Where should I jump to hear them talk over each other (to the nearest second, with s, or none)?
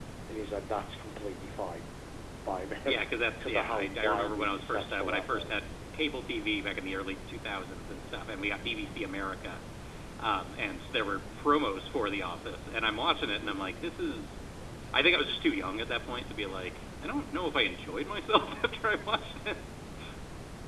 3 s